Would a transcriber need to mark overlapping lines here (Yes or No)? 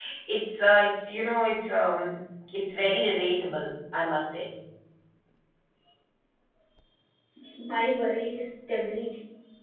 No